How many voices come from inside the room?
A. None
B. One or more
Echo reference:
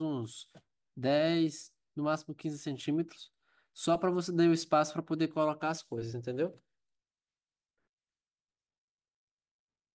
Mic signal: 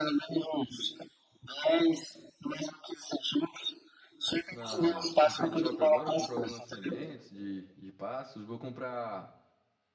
B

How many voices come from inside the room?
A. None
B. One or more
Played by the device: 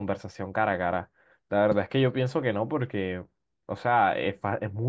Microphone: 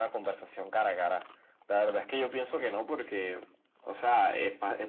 A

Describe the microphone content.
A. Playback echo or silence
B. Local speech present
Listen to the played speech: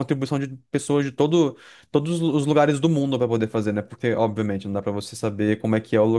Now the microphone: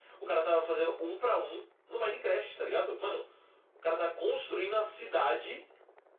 B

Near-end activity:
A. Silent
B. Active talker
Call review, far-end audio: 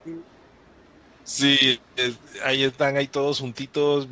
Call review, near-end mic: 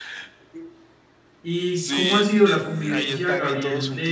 B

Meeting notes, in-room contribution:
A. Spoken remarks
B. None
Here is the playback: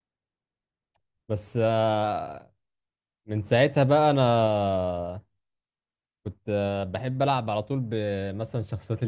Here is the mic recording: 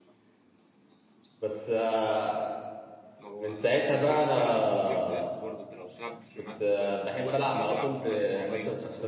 A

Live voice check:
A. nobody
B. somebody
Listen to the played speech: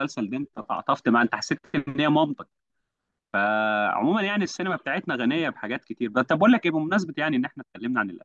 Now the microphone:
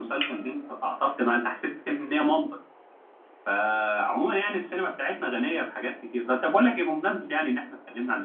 A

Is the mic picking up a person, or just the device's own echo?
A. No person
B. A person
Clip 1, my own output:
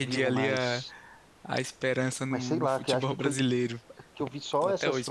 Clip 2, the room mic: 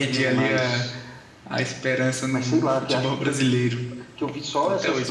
A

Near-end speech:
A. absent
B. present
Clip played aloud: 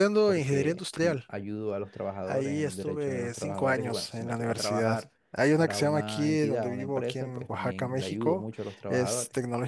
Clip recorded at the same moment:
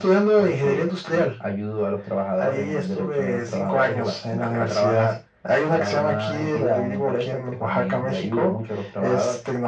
A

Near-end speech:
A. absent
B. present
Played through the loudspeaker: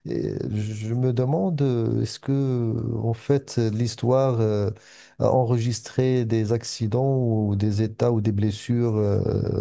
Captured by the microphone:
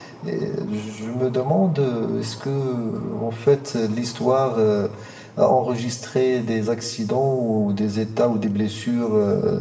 A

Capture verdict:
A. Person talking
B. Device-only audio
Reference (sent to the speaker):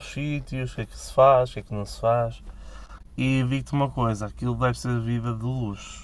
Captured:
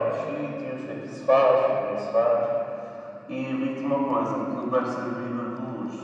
B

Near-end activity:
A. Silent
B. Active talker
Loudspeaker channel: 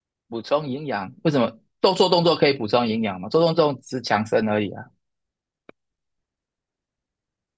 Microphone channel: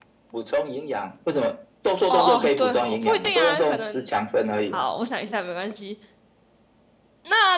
B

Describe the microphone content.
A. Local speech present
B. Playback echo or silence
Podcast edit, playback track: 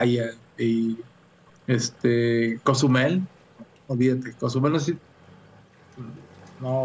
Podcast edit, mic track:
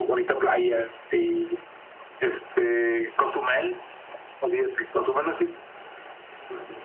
B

